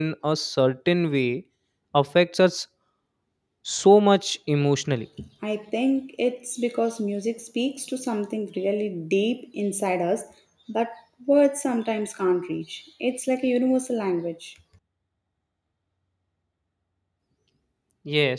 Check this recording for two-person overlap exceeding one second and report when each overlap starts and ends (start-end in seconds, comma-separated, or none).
none